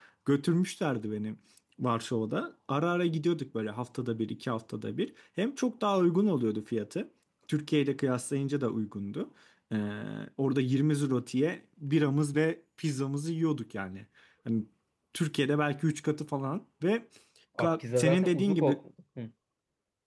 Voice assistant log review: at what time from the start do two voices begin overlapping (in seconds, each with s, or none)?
17.6 s